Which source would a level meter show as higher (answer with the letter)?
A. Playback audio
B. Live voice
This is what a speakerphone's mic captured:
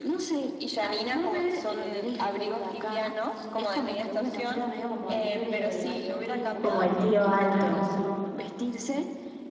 B